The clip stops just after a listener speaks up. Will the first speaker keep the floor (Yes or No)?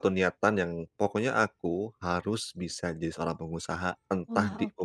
Yes